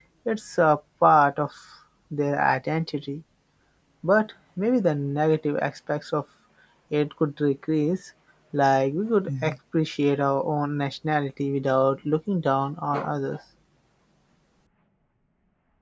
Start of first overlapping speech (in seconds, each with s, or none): none